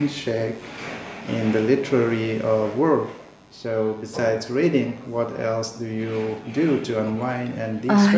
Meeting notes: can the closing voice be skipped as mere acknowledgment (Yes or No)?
No